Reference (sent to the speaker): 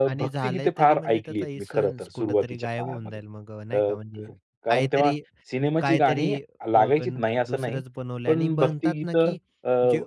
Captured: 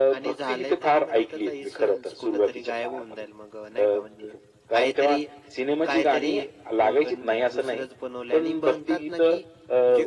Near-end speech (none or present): none